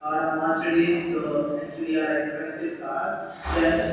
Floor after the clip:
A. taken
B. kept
B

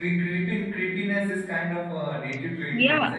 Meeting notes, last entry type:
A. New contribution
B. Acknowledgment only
A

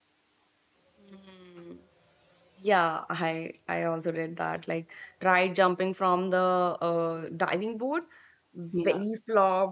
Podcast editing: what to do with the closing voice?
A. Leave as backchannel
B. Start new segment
A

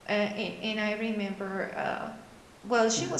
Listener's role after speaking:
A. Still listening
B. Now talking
A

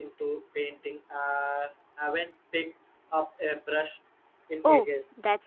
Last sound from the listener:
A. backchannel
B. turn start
B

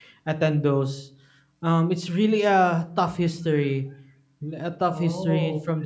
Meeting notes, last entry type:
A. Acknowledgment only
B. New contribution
A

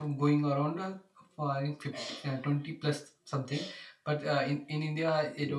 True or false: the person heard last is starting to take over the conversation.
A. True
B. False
B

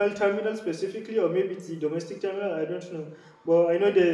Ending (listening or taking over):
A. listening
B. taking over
A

